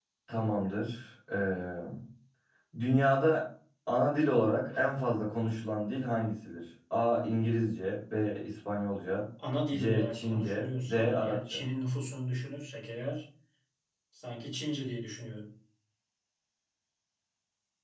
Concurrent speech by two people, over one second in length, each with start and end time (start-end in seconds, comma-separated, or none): 9.7-11.6